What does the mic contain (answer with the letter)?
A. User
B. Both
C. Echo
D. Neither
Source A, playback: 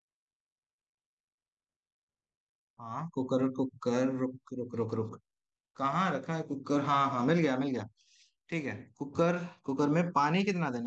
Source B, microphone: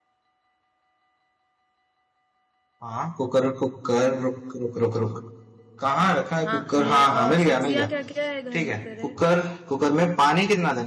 B